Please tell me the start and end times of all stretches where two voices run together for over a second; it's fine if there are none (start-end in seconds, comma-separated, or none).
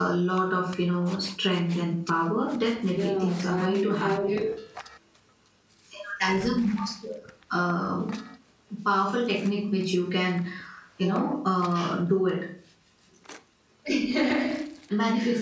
2.9-4.3